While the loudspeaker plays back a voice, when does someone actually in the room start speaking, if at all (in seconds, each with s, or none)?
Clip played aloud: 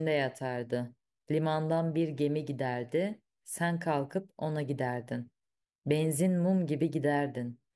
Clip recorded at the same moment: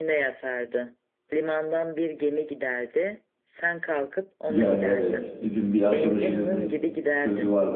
4.5 s